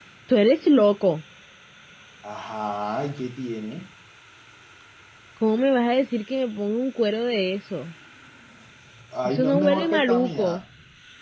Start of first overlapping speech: 9.2 s

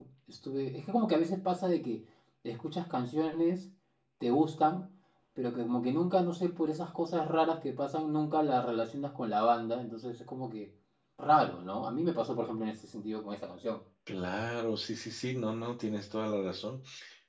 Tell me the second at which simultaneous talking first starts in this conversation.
none

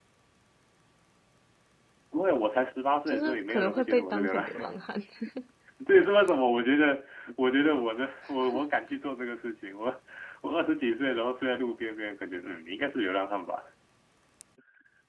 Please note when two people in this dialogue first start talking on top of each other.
3.1 s

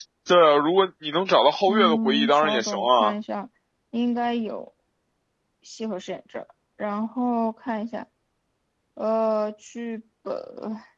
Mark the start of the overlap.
1.7 s

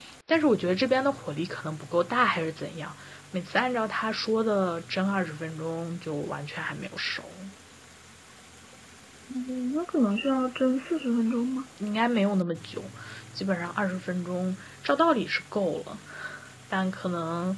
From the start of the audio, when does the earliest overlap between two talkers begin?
none

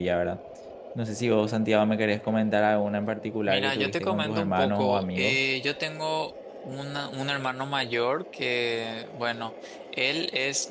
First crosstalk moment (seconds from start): 3.5 s

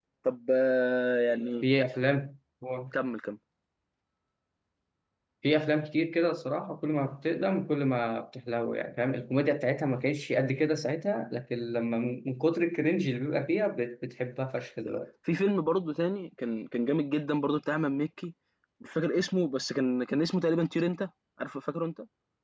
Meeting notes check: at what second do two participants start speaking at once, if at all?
none

